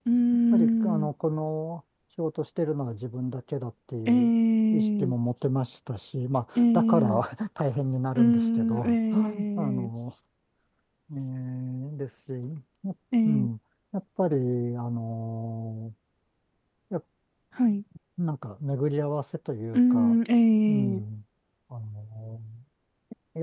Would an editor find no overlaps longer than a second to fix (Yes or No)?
No